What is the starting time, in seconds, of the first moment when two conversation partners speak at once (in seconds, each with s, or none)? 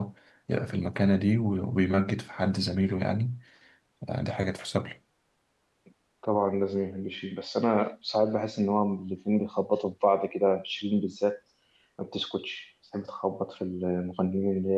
none